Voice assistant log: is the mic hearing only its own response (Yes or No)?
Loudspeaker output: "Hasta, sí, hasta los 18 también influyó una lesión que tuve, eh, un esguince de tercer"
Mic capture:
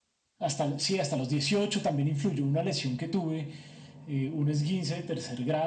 Yes